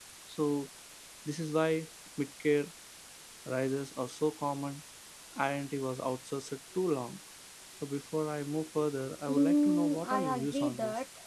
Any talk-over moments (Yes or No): Yes